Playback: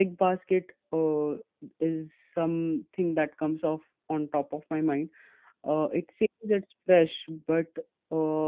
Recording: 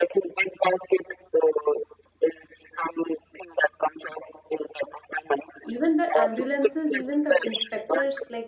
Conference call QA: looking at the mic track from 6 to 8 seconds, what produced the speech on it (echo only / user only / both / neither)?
both